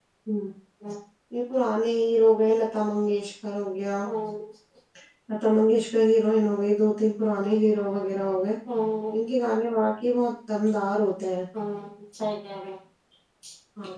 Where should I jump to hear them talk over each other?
none

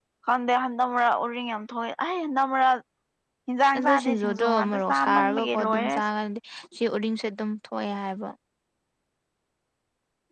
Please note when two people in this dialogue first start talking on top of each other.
3.8 s

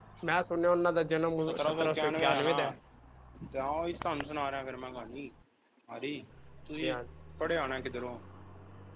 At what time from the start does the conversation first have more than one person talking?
1.4 s

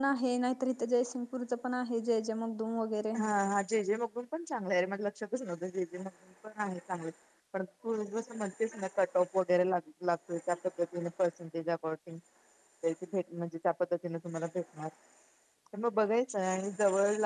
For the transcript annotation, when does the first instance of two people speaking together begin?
none

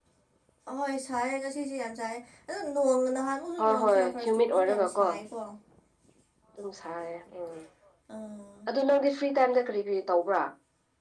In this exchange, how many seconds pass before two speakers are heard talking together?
3.6 s

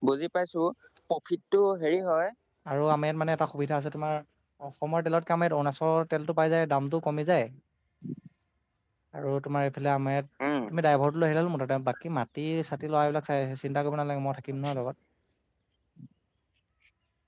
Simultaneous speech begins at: none

